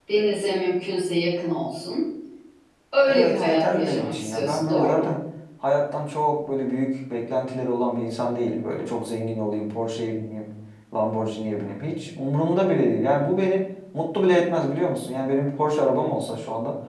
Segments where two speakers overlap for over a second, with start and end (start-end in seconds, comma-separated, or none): 3.1-5.2